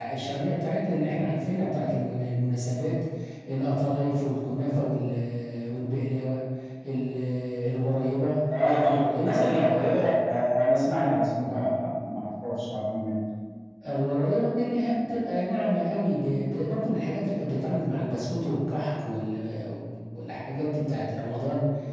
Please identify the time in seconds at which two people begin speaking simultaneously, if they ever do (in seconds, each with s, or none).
8.6 s